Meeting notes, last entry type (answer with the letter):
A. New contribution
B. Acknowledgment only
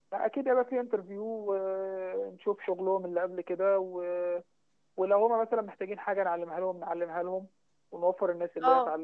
B